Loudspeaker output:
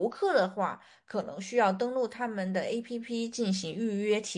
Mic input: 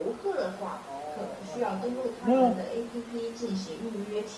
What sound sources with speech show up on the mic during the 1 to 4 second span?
both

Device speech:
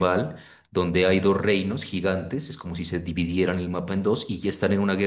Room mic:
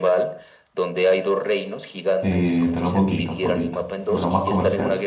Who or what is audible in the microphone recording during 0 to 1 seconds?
echo only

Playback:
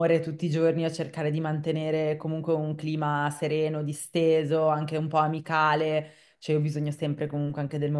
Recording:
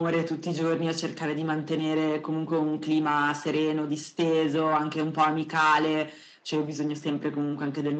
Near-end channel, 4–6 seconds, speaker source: echo only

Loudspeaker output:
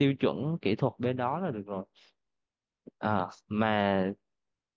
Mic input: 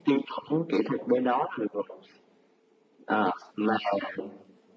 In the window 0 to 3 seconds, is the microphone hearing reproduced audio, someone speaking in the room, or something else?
echo only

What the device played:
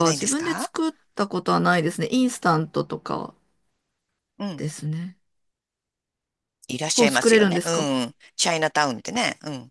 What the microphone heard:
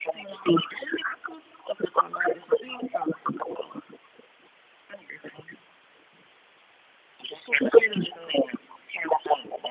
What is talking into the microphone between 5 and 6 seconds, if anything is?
echo only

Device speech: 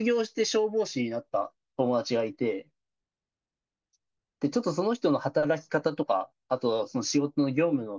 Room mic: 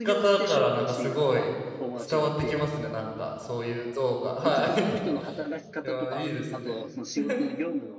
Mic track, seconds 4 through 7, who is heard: both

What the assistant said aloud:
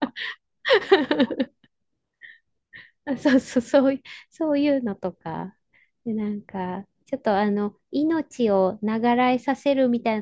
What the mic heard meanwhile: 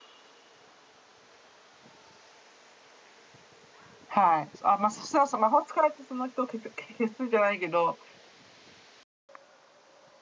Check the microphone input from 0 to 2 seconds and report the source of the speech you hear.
neither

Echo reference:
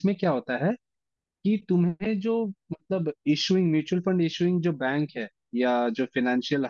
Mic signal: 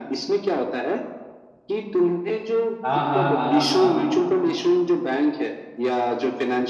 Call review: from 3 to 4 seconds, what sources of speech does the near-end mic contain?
both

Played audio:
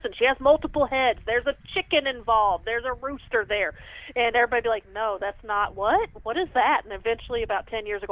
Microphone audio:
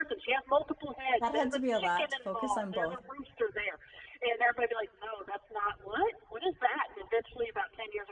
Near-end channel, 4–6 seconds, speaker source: echo only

